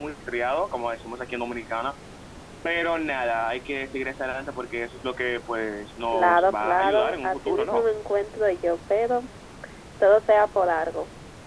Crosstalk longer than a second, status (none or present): present